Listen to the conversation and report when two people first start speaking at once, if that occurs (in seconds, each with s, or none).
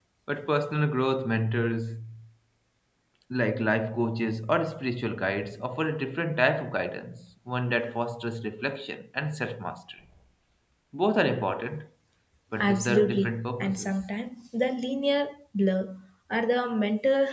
12.6 s